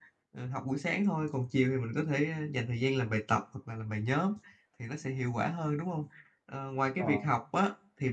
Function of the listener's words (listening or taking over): listening